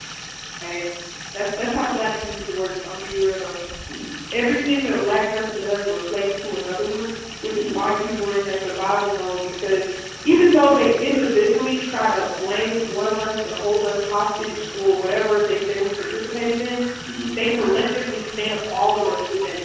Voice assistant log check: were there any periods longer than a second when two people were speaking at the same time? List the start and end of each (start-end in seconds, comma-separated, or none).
none